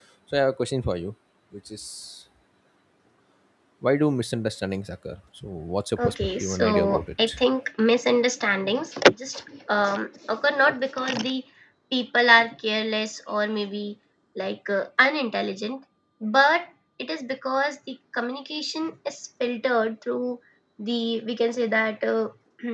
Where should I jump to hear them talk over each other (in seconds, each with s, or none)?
6.0 s